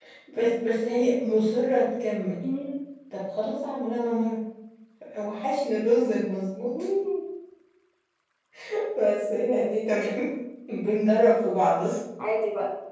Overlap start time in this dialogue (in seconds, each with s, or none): none